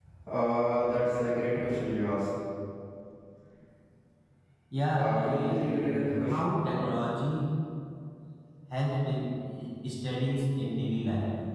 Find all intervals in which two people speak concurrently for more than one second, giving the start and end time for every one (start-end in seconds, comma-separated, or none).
4.9-6.5